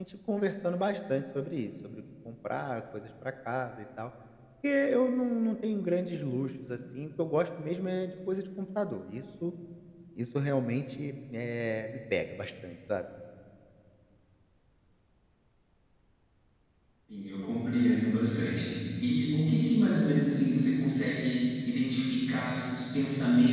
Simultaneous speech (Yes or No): No